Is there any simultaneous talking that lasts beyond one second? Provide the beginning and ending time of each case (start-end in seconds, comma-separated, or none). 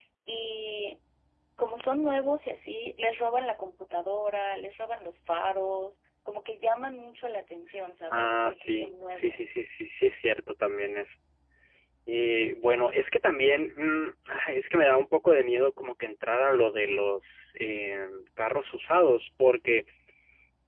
8.1-9.5